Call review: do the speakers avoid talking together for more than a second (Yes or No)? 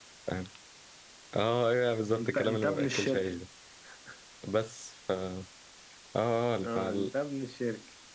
No